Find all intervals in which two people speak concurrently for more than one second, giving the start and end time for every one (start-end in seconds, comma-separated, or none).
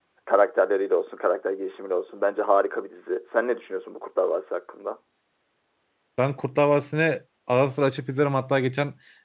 none